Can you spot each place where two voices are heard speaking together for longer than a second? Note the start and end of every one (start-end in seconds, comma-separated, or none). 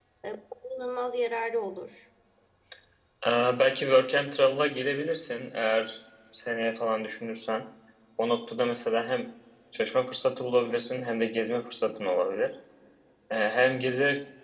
none